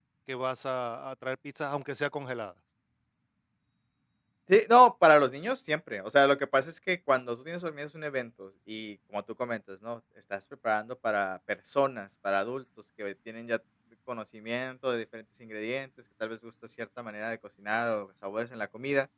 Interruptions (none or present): none